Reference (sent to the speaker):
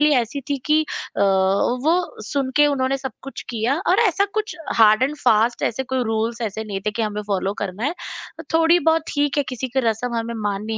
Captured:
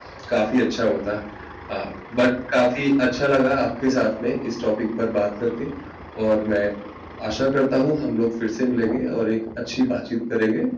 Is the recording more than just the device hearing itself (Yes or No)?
Yes